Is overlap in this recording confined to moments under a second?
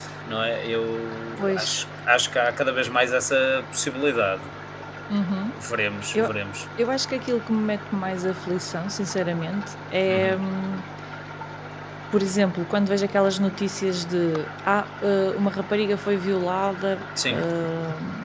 Yes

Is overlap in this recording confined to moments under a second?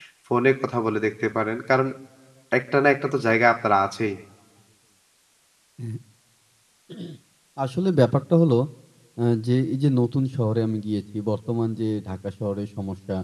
Yes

